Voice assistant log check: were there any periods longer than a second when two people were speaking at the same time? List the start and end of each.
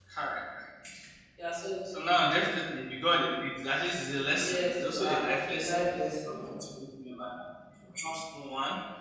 4.4-5.8

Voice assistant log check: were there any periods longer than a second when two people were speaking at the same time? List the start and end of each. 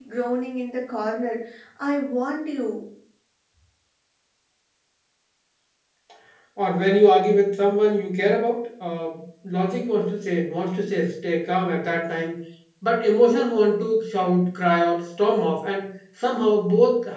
none

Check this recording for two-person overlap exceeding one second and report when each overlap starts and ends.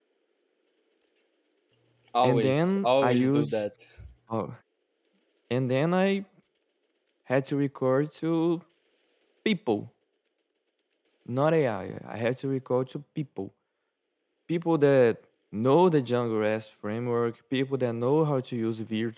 2.2-3.6

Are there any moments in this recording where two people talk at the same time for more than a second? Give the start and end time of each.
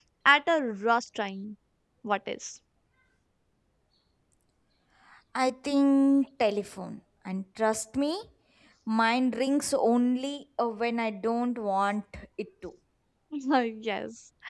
none

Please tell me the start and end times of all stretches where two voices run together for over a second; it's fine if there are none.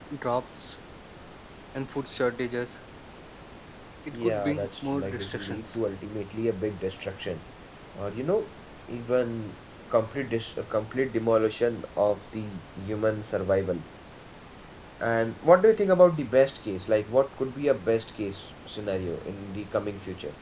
4.1-5.8

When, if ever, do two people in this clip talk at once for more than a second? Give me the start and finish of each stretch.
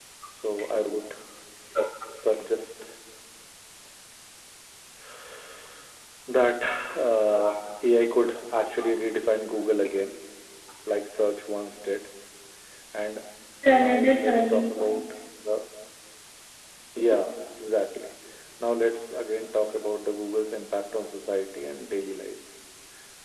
13.7-15.0

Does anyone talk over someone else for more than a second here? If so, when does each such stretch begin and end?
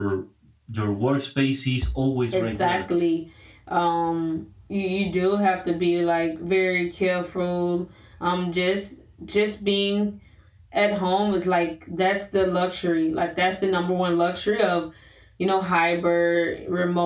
none

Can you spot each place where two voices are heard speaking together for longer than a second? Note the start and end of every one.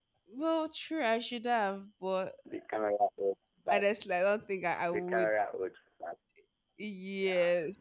none

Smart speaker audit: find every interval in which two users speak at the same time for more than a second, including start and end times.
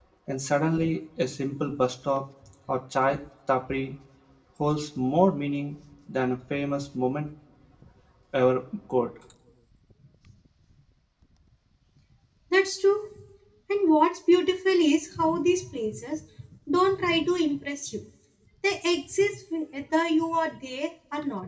none

